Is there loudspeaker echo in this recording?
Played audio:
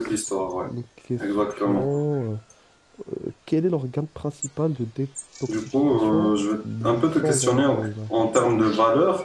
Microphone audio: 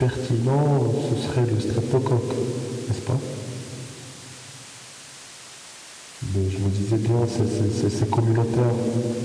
No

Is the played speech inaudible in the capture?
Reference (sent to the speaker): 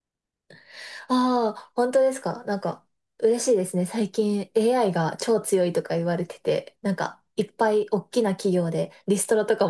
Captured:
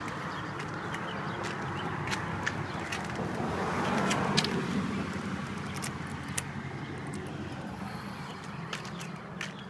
Yes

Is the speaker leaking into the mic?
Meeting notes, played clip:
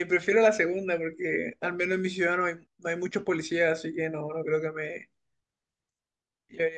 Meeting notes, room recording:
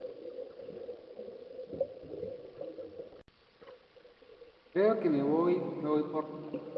No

